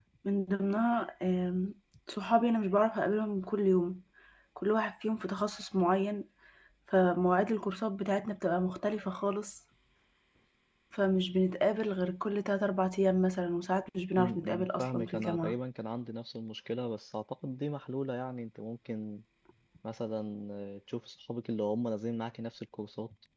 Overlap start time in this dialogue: 14.2 s

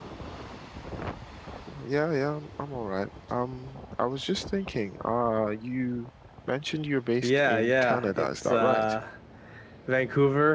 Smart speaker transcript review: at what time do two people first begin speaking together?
7.2 s

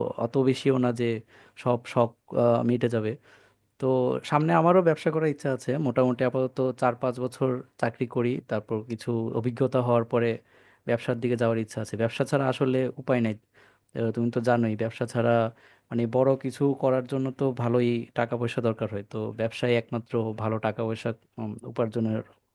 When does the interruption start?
none

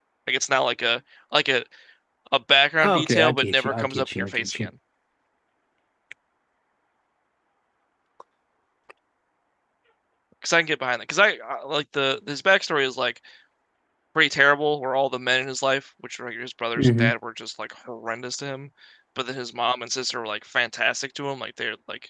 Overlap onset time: 2.8 s

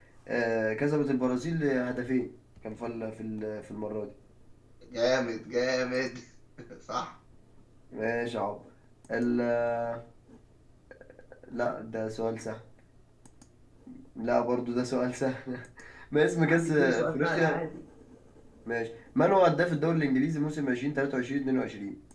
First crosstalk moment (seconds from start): 16.4 s

